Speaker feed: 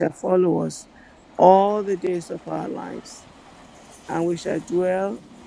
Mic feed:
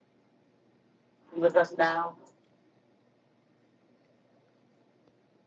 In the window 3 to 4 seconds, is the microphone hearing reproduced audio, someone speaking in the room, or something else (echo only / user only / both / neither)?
neither